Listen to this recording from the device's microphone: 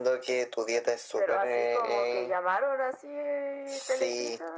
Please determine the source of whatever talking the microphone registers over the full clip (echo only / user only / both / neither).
echo only